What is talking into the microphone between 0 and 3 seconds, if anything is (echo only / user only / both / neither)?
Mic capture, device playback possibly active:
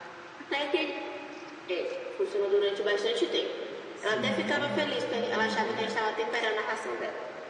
echo only